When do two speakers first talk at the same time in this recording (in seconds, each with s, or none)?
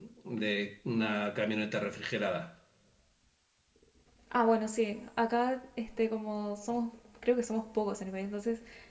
none